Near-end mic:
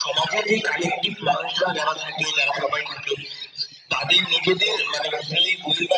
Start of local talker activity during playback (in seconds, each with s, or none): none